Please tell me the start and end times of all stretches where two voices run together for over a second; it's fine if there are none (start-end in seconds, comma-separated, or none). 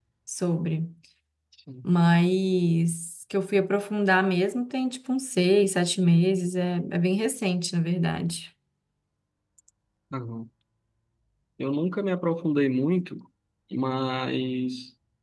none